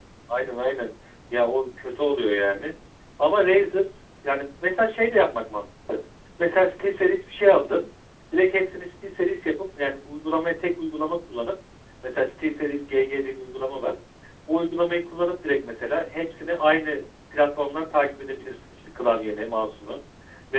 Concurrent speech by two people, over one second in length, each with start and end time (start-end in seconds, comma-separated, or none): none